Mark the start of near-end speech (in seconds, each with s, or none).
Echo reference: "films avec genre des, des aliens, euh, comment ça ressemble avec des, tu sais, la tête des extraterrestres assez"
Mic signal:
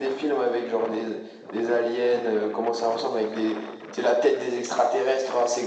none